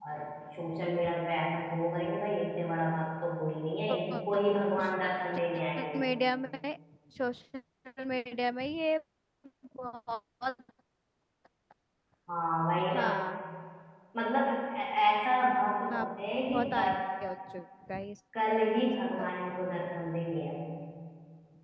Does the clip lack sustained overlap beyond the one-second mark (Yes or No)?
Yes